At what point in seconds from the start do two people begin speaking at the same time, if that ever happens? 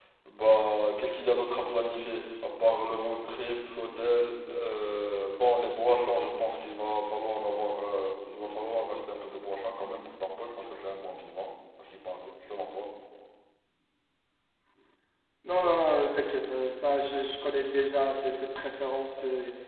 none

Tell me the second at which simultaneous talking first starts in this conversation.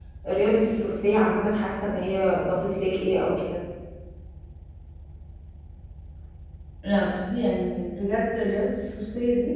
none

